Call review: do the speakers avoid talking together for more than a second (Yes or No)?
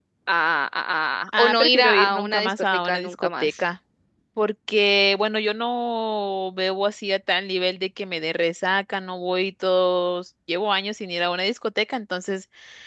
No